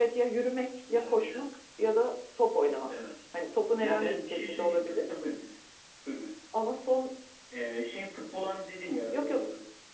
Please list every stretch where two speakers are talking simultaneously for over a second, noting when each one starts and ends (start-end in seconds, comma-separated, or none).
3.8-5.1